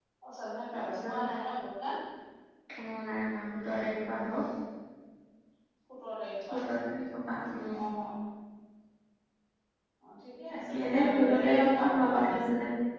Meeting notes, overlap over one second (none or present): present